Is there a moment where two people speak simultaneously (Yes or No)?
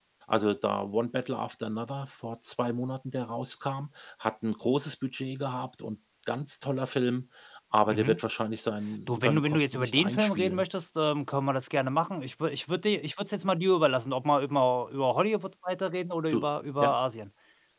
Yes